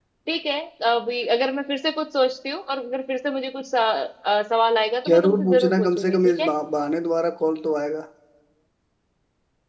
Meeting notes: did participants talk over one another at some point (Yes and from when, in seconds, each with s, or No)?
Yes, from 5.0 s